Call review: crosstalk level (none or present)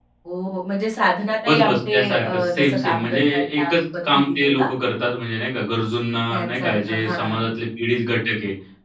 present